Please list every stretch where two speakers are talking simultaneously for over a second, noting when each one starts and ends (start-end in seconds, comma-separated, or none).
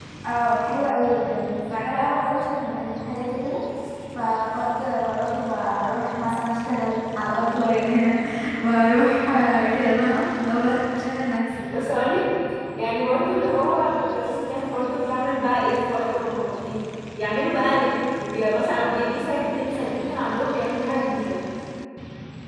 none